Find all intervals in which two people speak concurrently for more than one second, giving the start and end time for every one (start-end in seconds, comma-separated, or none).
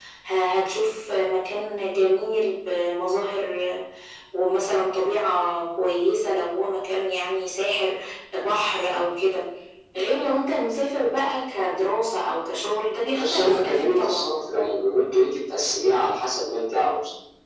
13.1-14.4